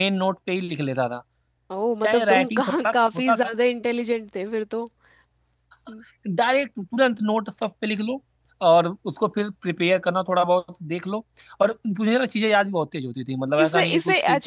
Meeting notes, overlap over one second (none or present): present